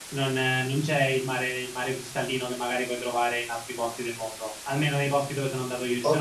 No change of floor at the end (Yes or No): No